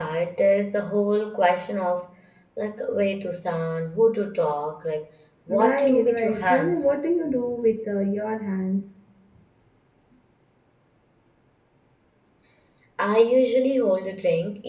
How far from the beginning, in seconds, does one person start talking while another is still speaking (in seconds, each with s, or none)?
5.5 s